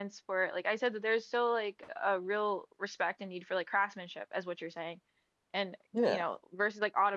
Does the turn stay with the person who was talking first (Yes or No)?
Yes